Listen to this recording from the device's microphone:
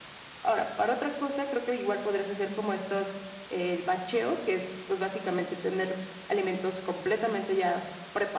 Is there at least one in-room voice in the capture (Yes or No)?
No